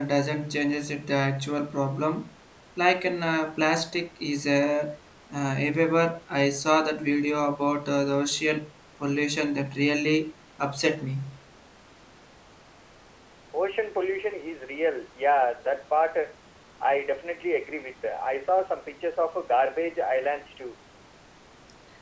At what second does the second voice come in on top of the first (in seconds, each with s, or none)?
none